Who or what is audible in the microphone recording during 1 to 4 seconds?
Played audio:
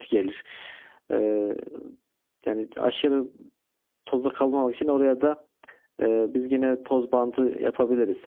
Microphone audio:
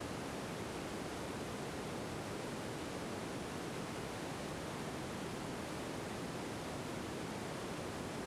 neither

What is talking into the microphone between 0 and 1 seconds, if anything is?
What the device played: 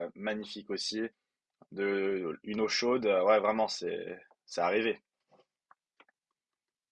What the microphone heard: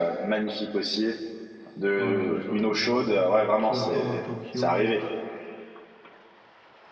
echo only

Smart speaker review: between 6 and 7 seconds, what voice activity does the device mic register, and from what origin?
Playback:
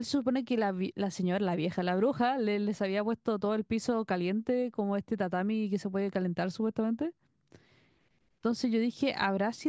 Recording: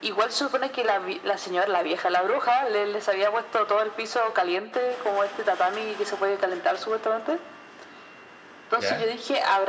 echo only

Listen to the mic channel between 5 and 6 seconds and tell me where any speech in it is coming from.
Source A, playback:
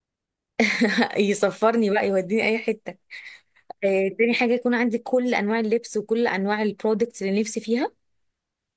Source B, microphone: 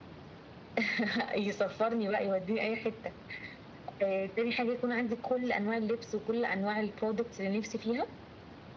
echo only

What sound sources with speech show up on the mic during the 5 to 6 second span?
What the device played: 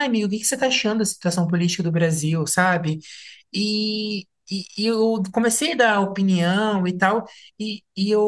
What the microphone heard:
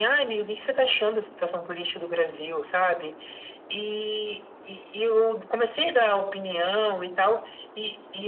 echo only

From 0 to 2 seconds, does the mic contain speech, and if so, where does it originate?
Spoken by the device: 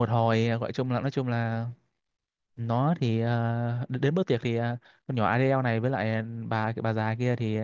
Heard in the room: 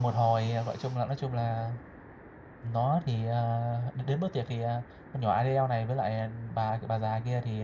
echo only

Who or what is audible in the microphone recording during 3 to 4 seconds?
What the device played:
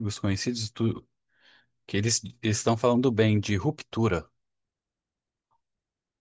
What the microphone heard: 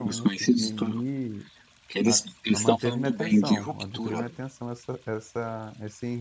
both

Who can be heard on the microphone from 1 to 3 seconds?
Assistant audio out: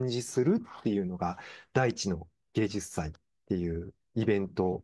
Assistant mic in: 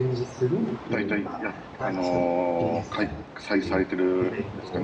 both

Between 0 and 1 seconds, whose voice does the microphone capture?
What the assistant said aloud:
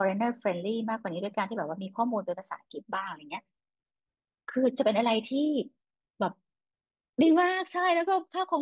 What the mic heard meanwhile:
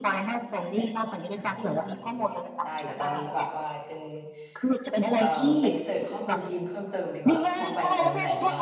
echo only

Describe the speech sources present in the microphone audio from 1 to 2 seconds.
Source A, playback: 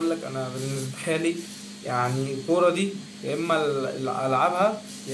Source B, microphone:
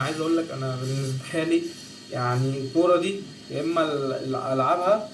echo only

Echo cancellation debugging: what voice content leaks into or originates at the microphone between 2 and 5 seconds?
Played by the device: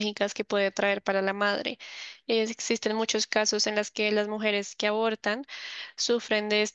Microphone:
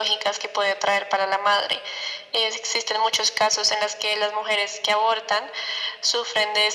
echo only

